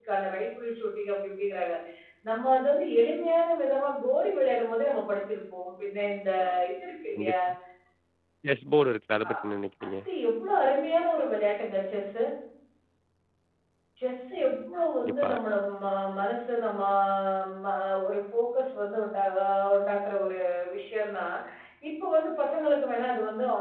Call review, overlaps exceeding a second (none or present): none